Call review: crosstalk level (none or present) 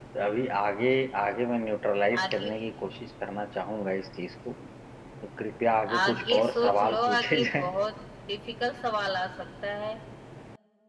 present